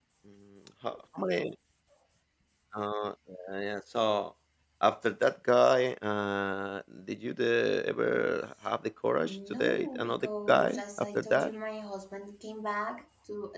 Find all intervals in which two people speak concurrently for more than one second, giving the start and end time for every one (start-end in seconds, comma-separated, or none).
9.2-11.5